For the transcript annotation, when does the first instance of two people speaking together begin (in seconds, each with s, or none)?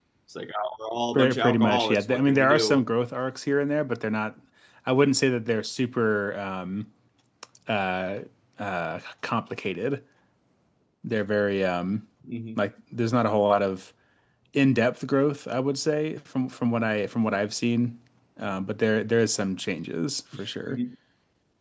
1.1 s